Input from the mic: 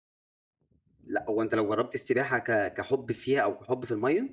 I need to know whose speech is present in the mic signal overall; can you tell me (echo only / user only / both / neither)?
user only